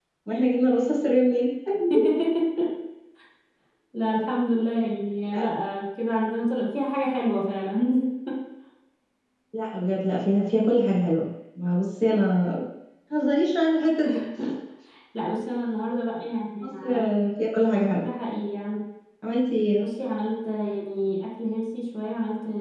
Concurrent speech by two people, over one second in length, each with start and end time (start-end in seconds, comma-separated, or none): none